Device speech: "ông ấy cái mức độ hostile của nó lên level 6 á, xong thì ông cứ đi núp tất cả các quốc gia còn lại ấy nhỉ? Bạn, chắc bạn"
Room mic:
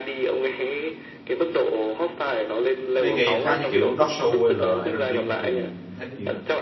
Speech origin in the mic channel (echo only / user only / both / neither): both